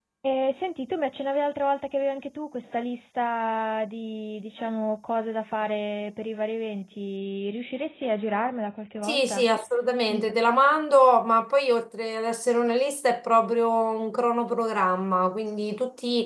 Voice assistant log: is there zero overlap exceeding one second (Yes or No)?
Yes